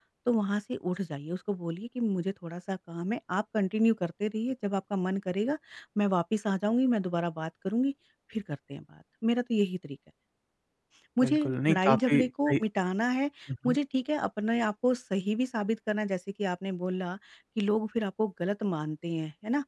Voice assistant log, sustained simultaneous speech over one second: present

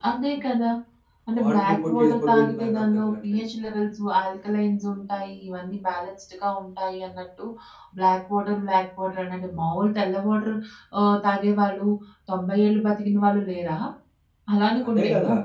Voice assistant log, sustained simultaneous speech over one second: present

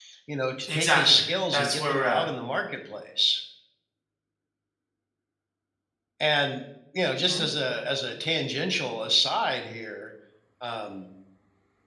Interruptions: present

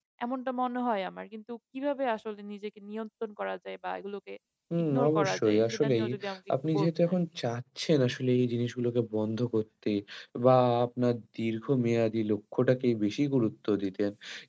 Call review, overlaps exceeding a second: present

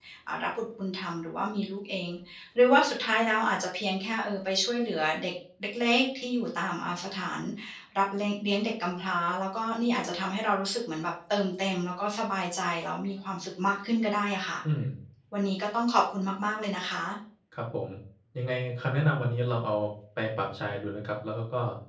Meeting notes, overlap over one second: none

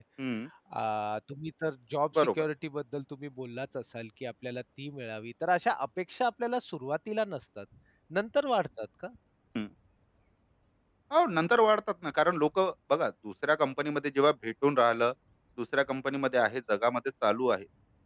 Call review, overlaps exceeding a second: none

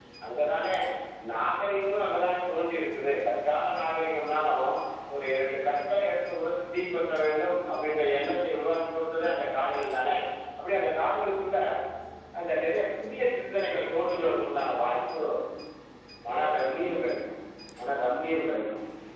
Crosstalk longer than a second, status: none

